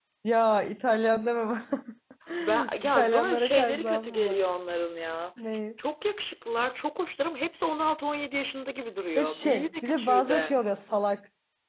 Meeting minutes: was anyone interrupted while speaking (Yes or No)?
Yes